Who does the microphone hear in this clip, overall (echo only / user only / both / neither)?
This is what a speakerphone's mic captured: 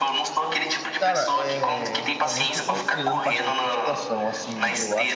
both